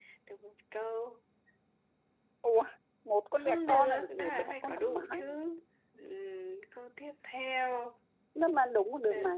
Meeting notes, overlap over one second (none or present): present